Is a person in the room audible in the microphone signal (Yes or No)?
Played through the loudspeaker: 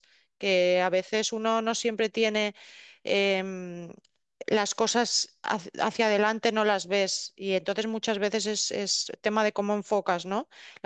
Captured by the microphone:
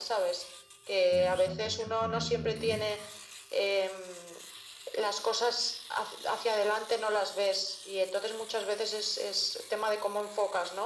Yes